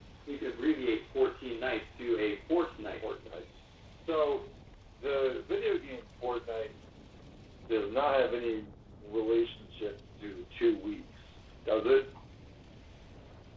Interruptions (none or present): none